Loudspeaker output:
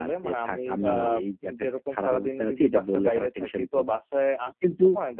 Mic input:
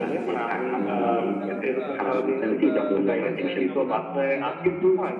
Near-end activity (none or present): present